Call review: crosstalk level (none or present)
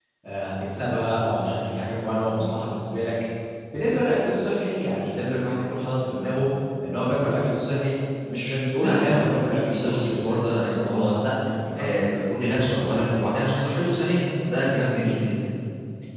present